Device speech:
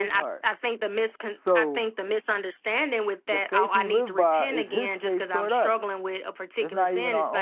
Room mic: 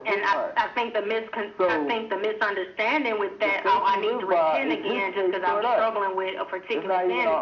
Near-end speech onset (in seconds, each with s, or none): none